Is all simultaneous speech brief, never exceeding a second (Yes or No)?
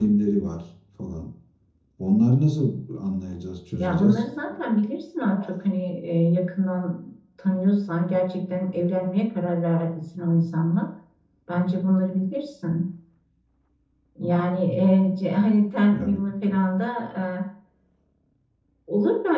Yes